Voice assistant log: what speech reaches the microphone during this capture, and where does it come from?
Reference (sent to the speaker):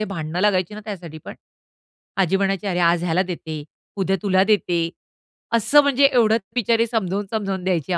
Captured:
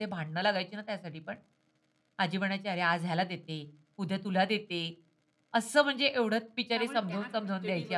both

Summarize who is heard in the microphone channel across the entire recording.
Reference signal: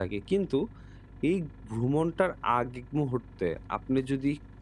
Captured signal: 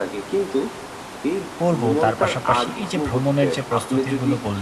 both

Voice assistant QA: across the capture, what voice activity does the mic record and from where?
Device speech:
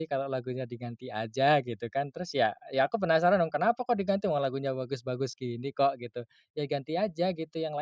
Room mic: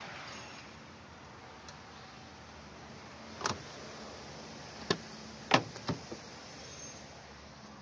neither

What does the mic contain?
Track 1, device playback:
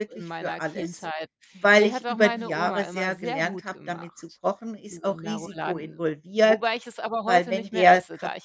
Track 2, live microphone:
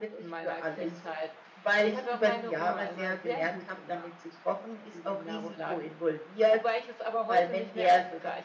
echo only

